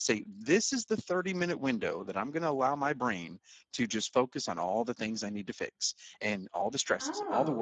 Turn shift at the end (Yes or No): No